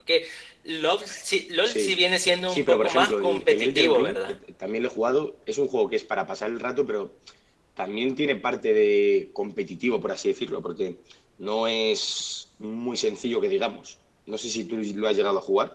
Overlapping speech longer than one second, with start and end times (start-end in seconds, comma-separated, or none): 2.5-4.3